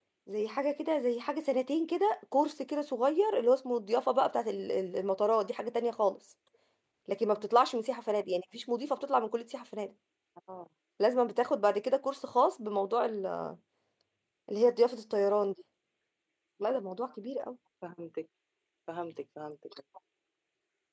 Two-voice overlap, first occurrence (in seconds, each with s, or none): none